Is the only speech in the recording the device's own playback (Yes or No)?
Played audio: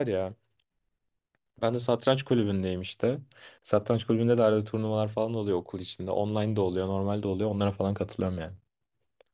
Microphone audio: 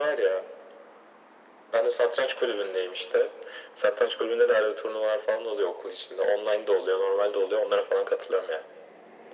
Yes